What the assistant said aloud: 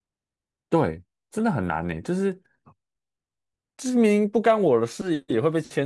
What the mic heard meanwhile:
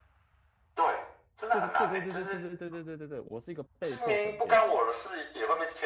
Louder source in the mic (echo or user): echo